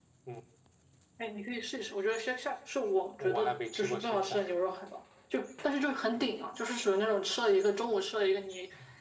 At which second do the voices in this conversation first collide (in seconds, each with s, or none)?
3.2 s